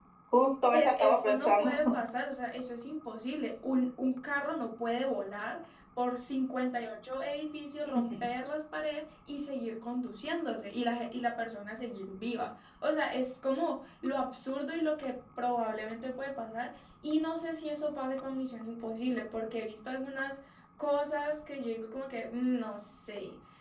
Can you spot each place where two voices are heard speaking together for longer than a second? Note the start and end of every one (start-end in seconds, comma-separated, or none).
0.7-1.9